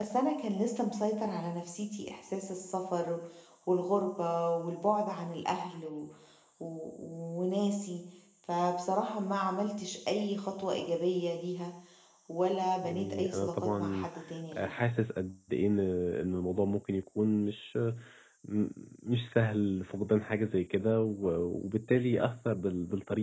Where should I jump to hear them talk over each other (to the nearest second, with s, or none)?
13 s